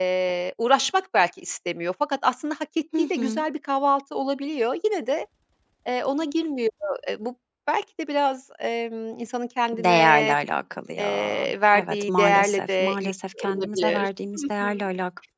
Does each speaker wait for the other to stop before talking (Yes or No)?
No